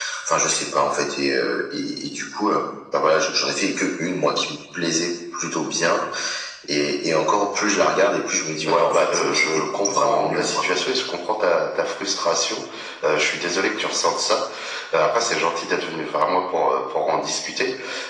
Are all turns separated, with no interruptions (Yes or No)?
No